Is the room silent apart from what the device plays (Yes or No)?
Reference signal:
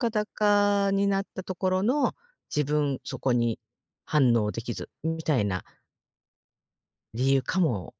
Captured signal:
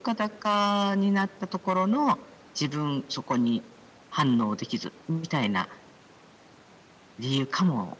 Yes